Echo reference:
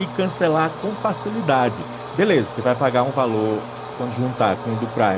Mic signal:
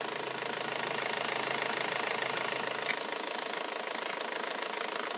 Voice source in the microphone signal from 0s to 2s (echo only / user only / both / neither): neither